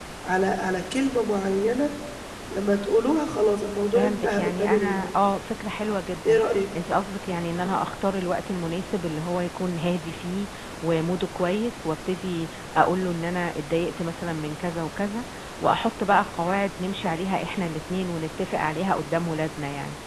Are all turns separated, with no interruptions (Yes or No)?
No